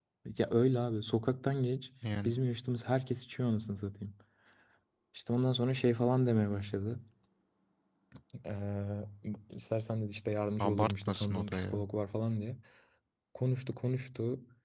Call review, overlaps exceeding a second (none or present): present